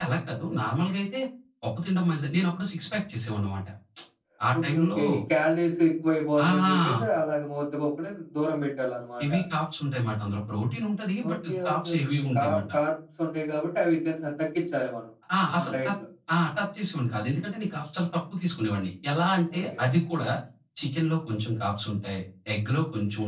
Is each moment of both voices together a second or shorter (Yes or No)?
No